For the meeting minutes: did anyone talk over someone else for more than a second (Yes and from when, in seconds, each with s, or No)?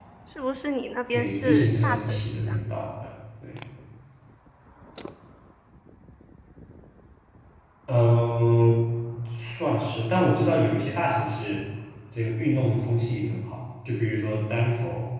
Yes, from 1.1 s